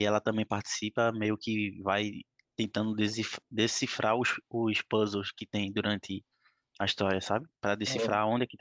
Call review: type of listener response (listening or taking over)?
listening